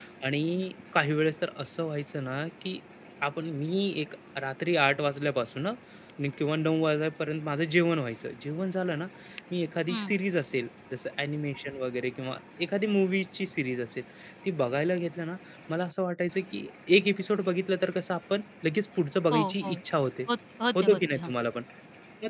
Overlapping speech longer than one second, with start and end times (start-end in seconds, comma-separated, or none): none